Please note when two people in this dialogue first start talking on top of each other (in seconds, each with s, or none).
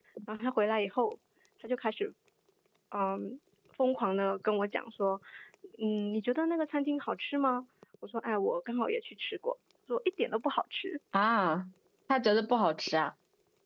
none